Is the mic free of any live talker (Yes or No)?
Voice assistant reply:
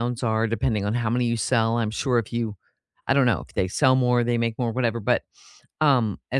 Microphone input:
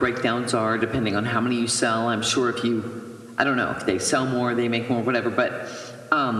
Yes